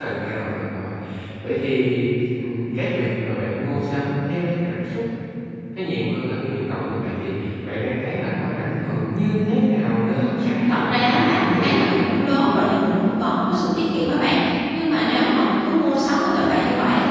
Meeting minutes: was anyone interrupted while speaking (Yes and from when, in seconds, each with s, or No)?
Yes, from 10.2 s